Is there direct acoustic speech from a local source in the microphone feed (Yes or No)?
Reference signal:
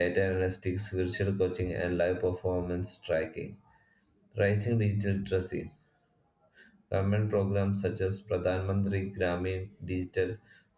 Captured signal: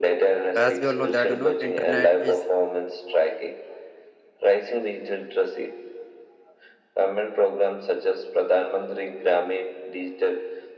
Yes